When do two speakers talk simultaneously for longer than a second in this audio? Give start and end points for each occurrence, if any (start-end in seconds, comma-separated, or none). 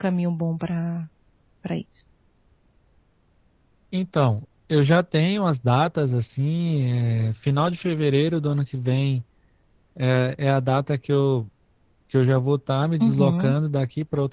none